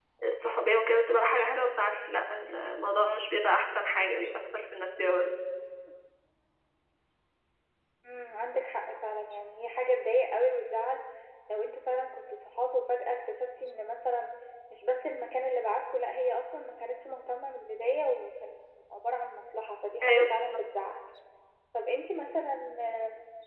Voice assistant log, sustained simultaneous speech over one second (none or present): none